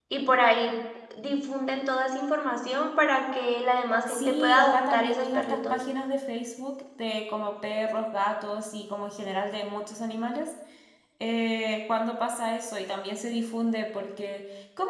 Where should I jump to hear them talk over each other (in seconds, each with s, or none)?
4.1 s